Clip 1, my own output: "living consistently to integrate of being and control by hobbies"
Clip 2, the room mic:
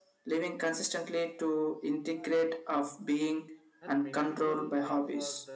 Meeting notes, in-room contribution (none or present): present